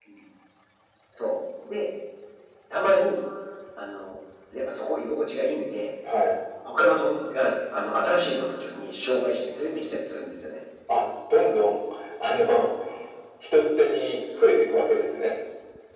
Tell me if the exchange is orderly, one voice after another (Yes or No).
Yes